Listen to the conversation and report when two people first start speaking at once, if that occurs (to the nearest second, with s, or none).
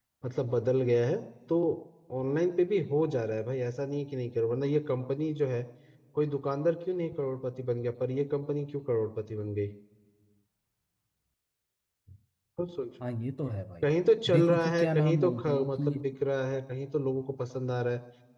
14 s